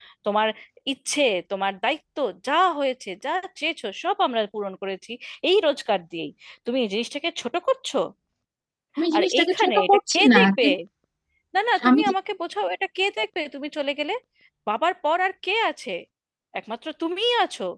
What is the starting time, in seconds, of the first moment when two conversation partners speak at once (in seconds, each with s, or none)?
9.1 s